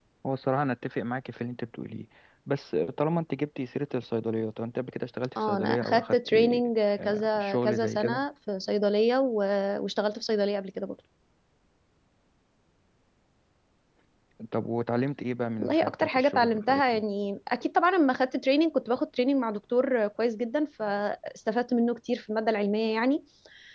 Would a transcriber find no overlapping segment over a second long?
No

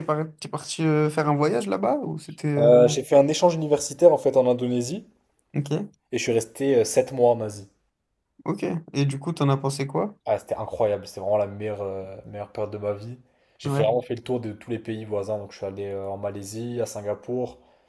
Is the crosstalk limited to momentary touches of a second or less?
Yes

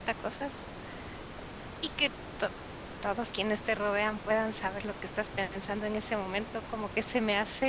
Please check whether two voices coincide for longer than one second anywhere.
No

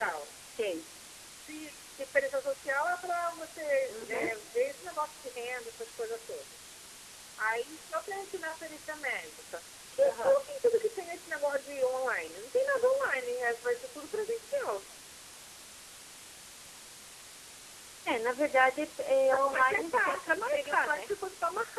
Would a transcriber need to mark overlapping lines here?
Yes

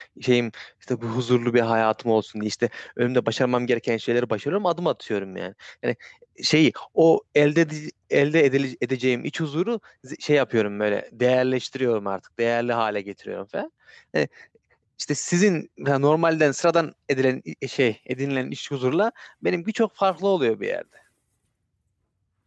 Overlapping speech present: No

